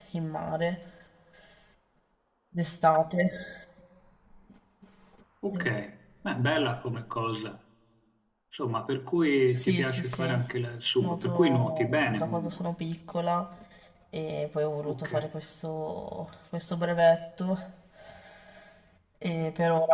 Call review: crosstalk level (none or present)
present